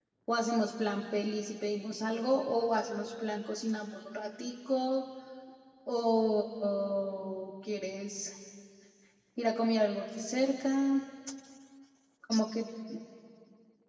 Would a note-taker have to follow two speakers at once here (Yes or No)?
No